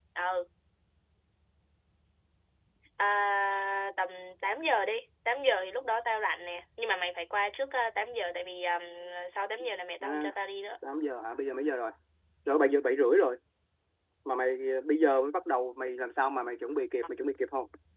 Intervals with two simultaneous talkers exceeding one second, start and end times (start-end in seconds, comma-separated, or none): none